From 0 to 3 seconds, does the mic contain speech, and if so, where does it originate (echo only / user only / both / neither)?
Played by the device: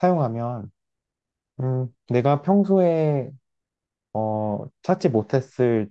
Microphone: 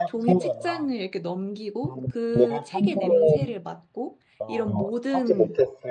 both